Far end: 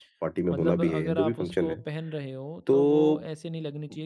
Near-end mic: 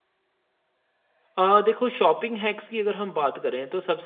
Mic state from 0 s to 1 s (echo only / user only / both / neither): neither